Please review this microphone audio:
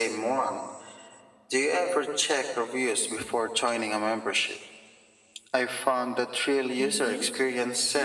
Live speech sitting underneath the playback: Yes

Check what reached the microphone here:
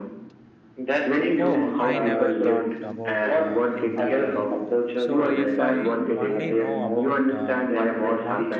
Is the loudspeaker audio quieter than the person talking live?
No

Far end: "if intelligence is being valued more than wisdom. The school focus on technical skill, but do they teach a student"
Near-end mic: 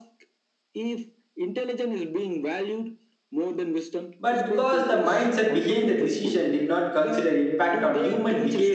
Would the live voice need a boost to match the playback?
No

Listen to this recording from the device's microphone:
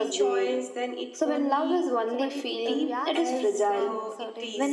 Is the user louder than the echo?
No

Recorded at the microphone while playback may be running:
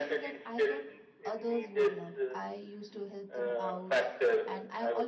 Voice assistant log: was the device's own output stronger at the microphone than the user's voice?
Yes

